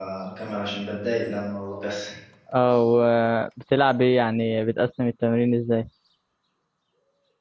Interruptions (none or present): none